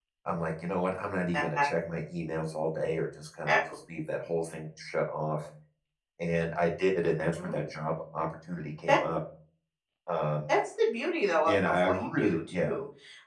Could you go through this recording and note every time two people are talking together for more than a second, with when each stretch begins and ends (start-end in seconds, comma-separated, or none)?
11.5-12.8